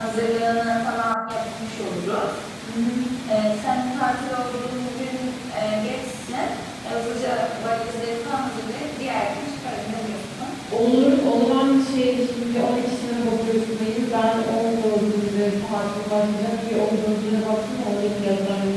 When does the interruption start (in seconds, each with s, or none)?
none